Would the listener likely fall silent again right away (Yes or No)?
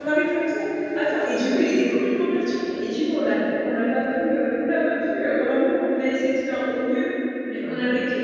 Yes